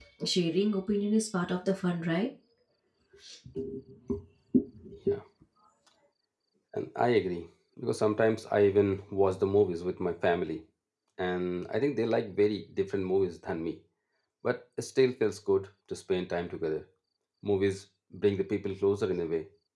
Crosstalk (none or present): none